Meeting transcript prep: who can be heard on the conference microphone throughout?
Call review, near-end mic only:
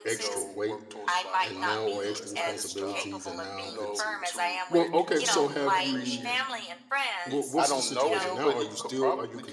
both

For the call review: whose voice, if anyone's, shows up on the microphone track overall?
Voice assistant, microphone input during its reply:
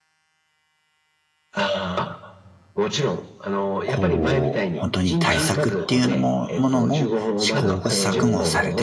both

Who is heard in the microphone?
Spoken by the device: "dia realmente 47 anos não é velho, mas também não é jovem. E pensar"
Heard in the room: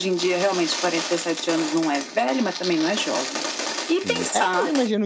both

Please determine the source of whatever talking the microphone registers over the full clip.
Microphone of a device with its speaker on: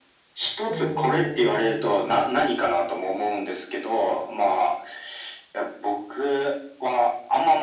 both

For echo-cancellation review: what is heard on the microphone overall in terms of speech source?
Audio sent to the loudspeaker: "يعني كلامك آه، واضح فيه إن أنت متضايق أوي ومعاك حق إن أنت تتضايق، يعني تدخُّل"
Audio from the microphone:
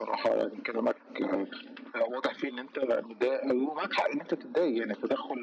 echo only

